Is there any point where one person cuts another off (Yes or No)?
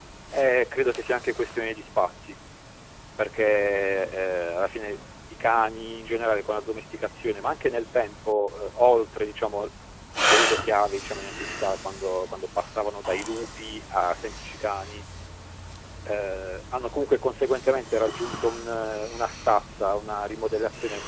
No